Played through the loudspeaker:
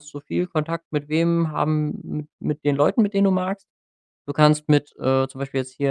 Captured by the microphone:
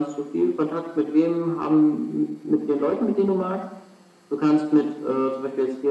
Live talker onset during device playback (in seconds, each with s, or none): none